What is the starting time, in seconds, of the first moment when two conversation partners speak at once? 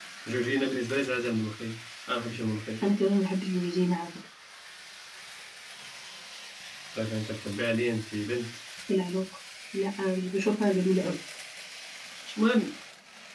none

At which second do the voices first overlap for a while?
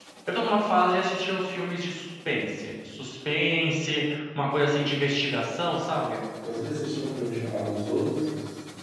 none

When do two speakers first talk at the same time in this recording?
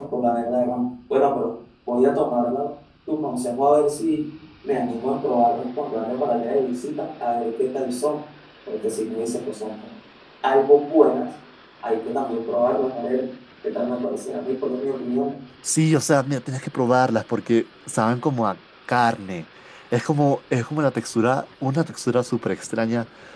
none

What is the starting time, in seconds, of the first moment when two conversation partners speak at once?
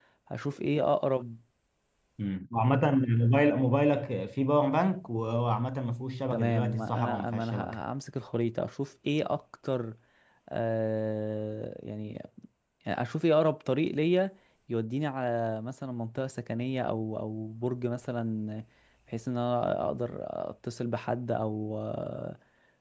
6 s

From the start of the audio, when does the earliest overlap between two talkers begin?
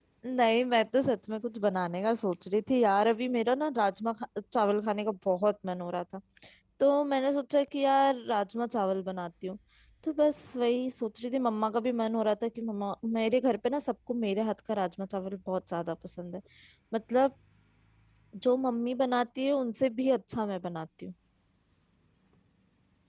none

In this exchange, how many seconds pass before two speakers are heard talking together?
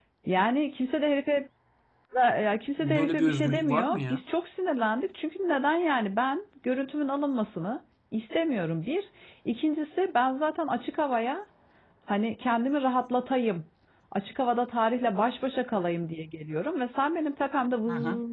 3 s

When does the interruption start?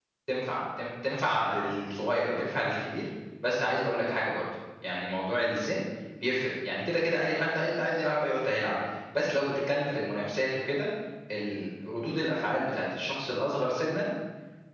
none

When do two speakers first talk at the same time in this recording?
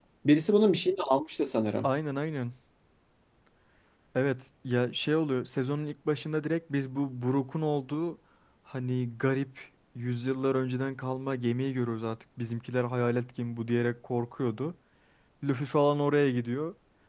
none

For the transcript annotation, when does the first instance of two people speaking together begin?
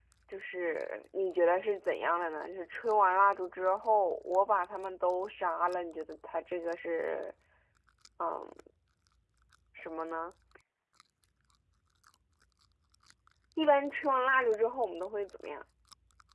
none

